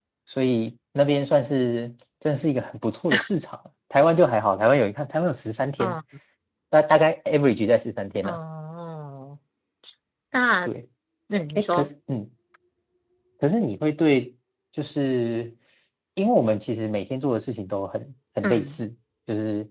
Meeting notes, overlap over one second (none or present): none